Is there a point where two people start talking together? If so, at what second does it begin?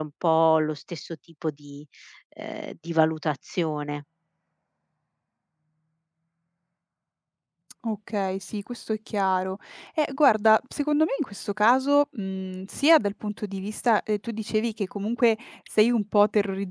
none

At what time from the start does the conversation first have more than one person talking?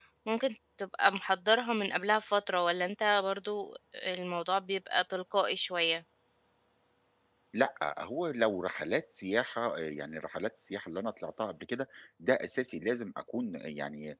none

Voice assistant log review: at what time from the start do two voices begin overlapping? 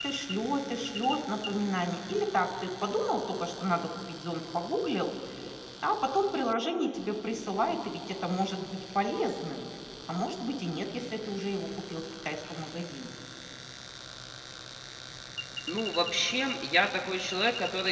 none

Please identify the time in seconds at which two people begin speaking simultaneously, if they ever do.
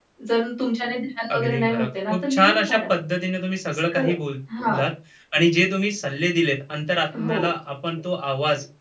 1 s

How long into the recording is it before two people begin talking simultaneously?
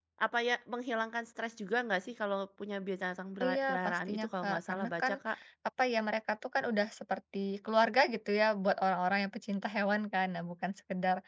3 s

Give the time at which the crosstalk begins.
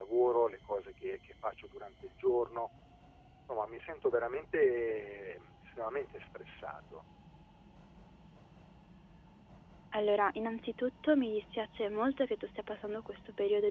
none

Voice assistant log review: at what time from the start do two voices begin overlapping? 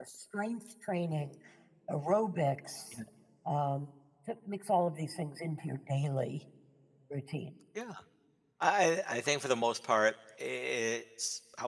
none

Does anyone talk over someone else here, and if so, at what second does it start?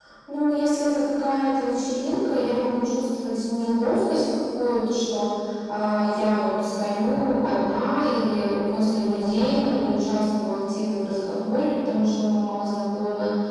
none

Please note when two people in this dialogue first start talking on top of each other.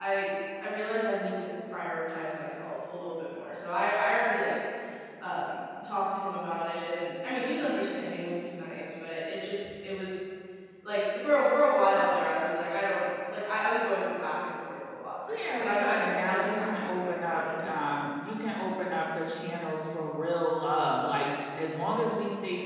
15 s

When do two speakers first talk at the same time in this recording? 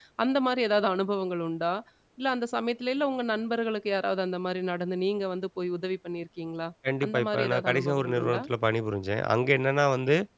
7 s

